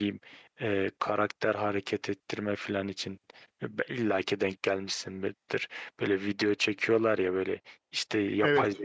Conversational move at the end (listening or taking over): listening